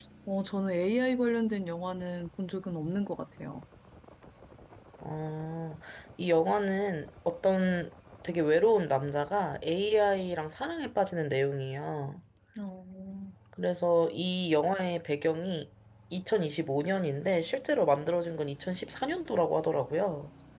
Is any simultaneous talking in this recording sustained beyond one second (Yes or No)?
No